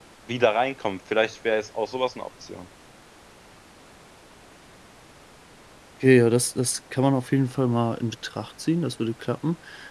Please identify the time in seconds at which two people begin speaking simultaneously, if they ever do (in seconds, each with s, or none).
none